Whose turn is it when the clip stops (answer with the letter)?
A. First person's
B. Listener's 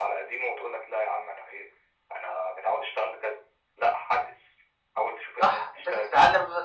B